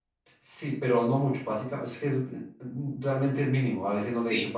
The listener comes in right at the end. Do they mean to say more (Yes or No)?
Yes